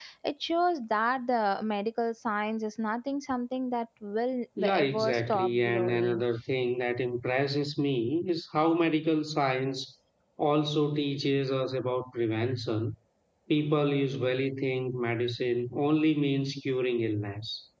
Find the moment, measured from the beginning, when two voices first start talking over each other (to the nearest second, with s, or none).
5 s